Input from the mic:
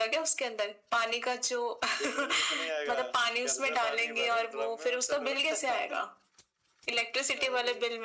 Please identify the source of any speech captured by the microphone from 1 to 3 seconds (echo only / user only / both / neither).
echo only